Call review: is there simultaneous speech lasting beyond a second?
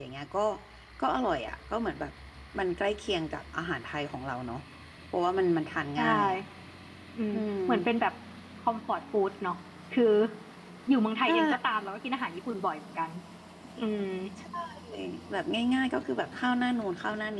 No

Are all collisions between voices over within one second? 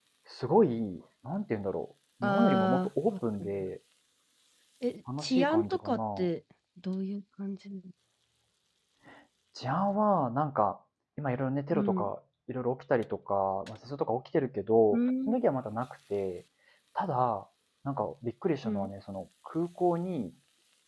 No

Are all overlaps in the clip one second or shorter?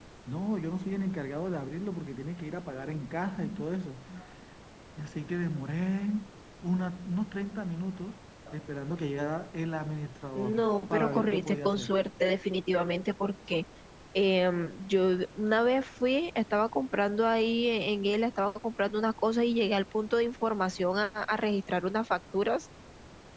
No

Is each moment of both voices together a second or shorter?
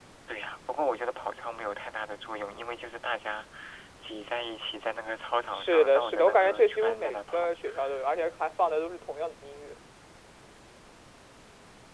No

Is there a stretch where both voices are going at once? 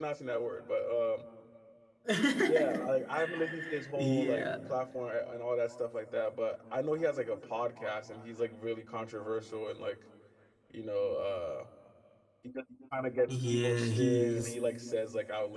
Yes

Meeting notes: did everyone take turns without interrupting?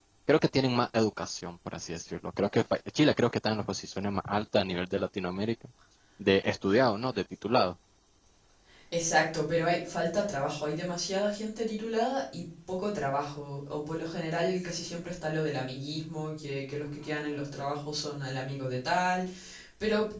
Yes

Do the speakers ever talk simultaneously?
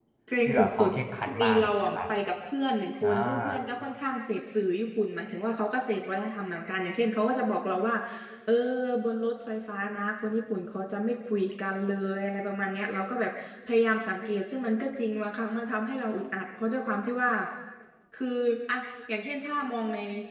Yes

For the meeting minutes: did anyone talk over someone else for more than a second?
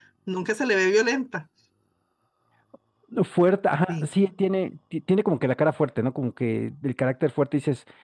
No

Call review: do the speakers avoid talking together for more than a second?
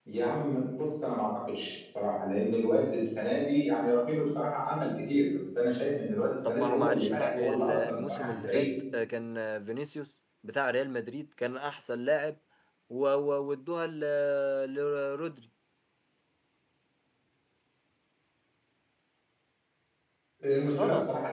No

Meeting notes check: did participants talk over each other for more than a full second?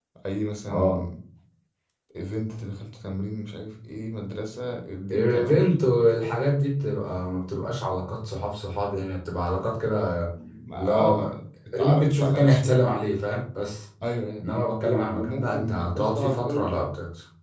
Yes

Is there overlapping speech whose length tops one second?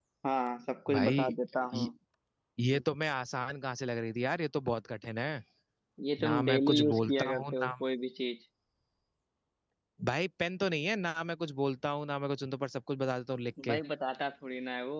Yes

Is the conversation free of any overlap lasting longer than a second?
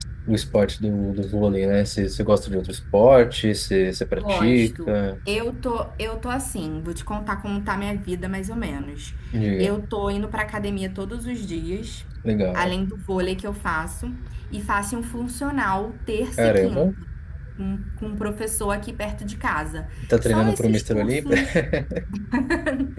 No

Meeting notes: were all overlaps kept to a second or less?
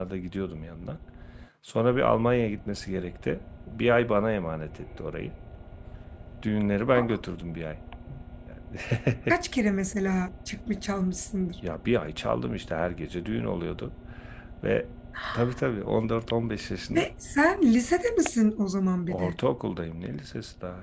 Yes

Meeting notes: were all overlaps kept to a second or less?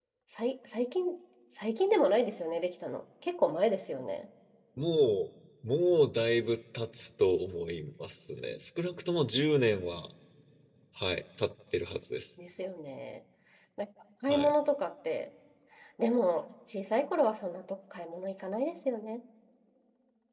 Yes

